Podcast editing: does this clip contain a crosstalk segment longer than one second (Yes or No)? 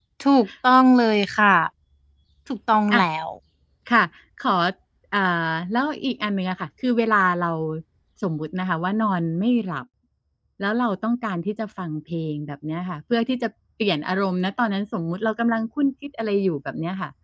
No